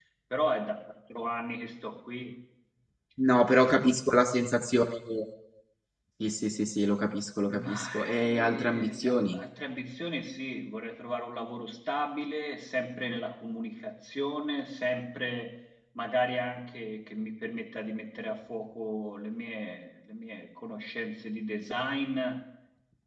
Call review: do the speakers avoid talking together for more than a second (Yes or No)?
No